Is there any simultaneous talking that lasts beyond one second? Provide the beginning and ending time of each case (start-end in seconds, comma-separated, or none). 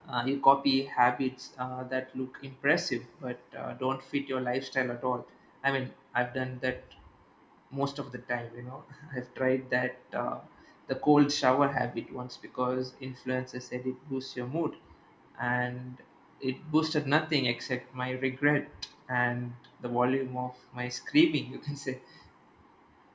none